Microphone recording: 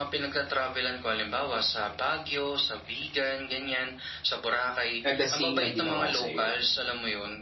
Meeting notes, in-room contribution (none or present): present